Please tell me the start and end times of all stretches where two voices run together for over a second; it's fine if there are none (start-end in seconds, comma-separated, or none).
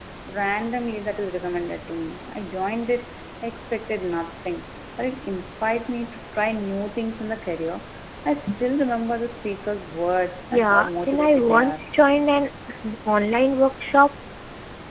10.5-11.8